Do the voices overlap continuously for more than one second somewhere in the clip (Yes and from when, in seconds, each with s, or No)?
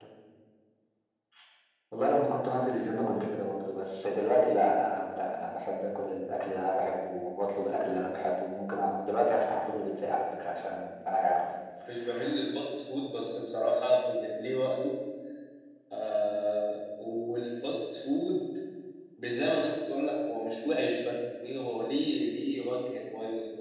No